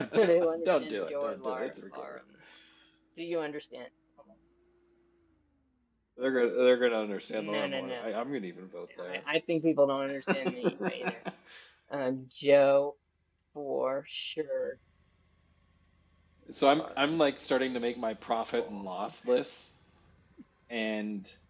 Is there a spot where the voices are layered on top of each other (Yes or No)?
Yes